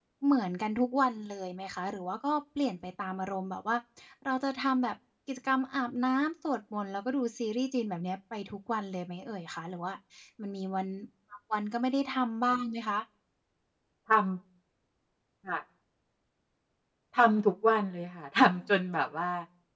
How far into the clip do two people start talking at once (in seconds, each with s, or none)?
none